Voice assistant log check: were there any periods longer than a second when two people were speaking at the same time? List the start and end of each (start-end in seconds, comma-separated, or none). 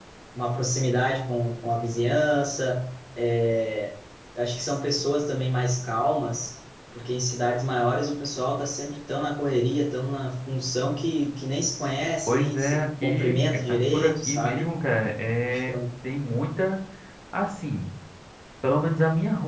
12.3-14.7